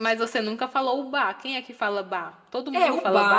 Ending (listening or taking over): taking over